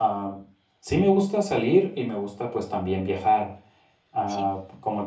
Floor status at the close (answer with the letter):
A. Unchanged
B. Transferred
A